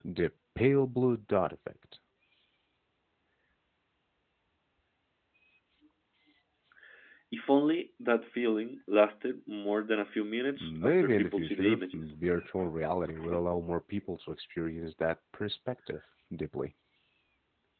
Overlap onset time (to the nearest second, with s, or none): 11 s